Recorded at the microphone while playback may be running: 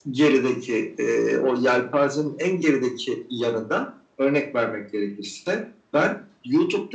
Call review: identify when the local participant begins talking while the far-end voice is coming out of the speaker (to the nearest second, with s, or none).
none